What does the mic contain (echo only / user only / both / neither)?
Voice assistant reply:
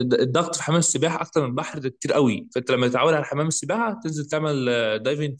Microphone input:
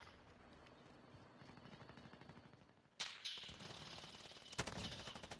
neither